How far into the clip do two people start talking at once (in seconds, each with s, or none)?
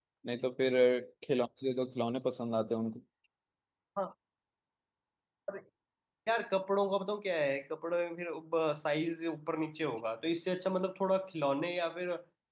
none